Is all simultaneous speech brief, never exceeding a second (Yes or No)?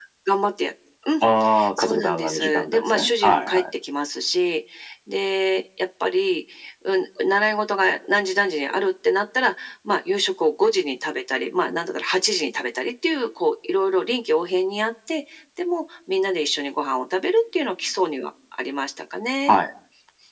No